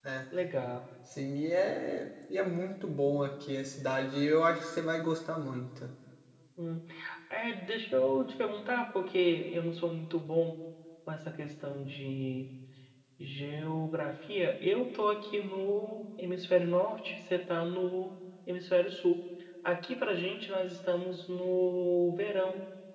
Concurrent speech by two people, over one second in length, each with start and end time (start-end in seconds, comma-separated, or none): none